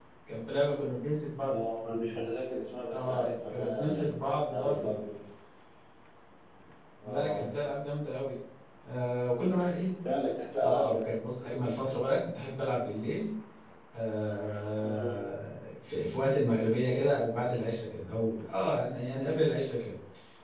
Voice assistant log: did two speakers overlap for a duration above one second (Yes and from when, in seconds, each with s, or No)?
Yes, from 2.9 s